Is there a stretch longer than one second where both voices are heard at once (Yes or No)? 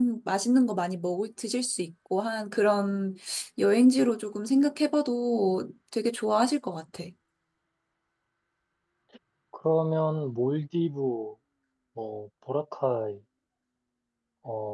No